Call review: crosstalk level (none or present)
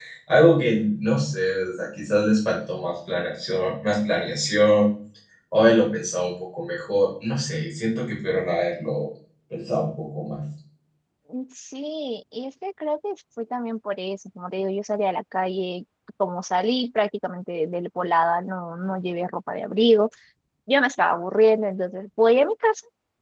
none